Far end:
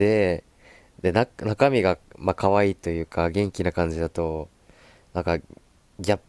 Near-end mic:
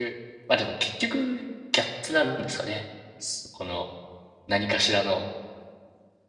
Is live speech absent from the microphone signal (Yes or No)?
No